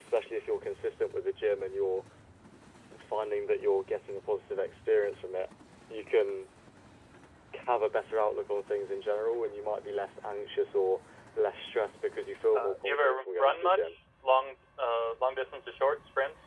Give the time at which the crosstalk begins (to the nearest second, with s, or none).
13 s